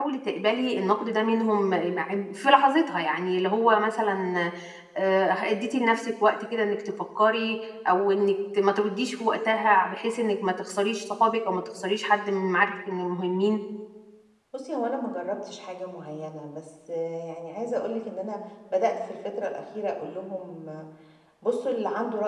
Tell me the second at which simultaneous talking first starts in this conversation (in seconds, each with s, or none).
none